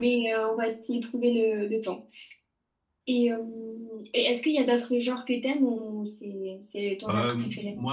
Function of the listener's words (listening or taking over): taking over